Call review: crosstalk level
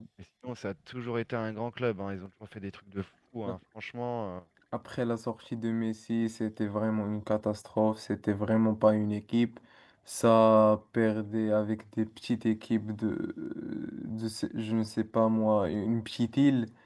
none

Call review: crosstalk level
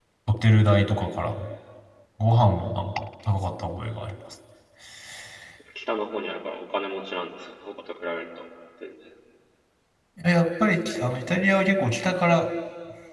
none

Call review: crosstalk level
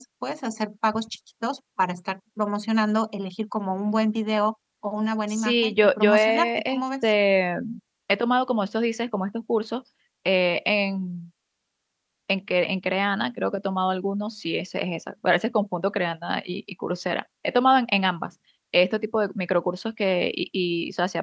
present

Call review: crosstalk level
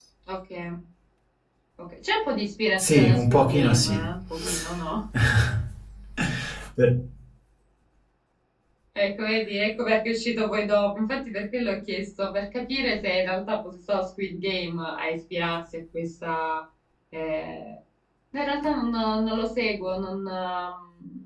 present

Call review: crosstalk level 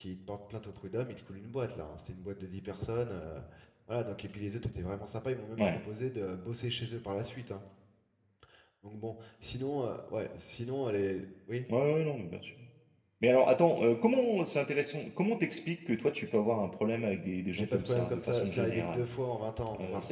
present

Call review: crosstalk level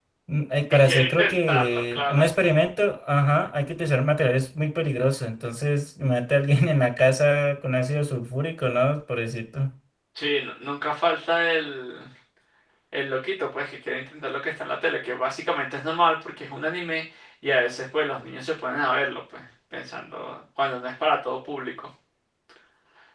present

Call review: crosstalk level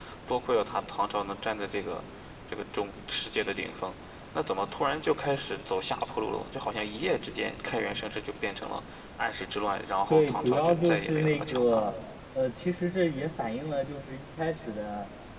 present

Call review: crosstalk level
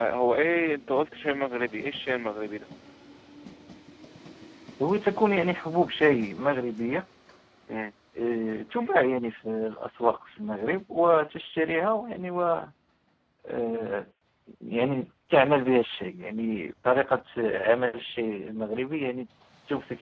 none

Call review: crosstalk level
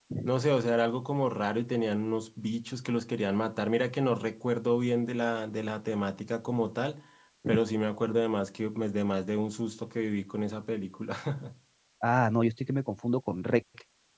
none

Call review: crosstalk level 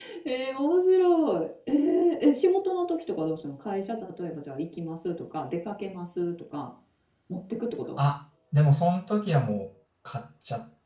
none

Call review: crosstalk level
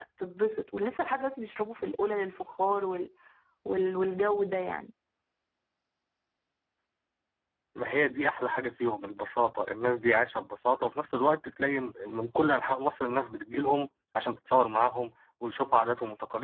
none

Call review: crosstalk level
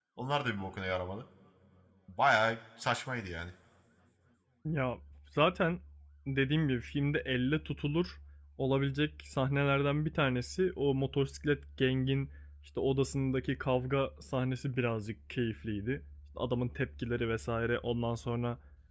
none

